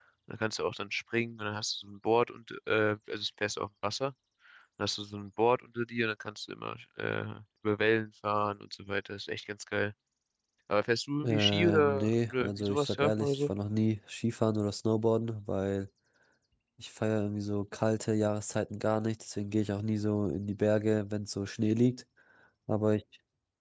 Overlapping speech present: Yes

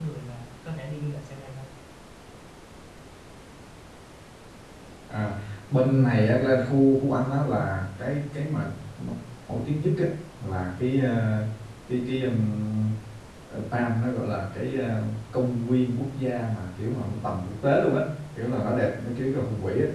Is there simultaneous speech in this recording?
No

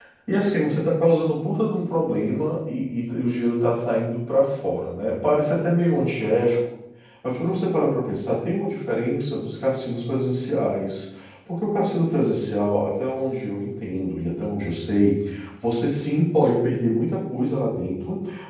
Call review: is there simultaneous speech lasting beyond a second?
No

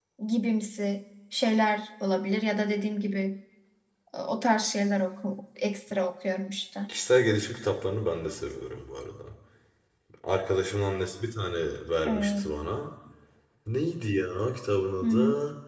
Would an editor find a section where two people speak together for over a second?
No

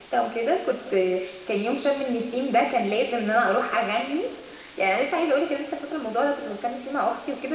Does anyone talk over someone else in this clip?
No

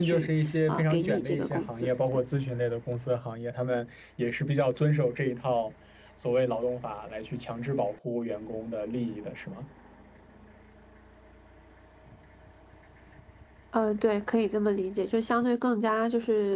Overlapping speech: Yes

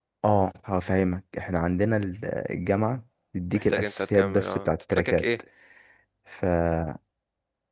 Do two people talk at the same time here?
Yes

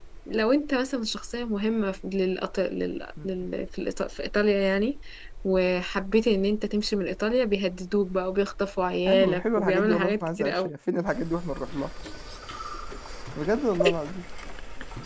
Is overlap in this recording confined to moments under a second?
No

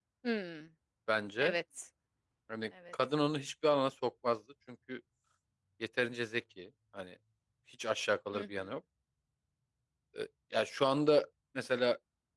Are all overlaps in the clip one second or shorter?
Yes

